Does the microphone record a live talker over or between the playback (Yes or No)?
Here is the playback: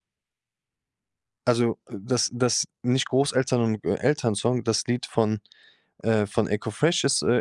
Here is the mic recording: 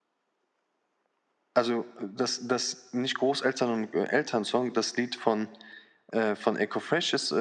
No